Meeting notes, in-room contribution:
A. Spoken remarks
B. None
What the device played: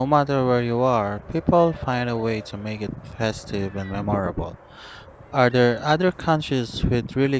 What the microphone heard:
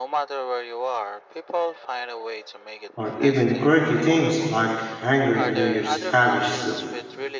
A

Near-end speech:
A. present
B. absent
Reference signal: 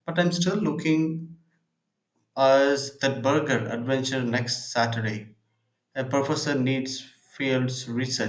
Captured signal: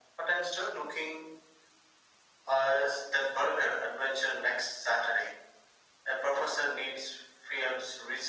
B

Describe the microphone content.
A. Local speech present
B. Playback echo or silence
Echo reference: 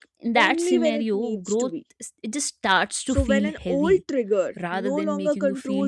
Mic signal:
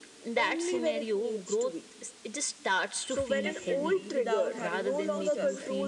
A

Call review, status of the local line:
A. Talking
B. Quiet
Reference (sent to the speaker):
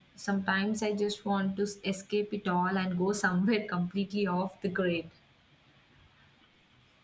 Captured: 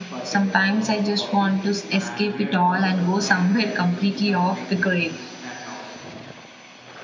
A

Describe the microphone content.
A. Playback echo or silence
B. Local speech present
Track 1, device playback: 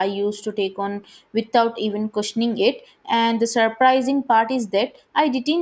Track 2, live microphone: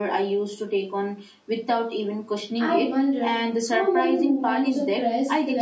B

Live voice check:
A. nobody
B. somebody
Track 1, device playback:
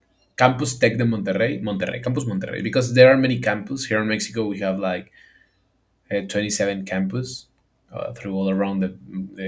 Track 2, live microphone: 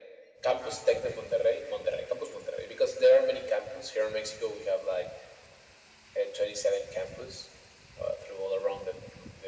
A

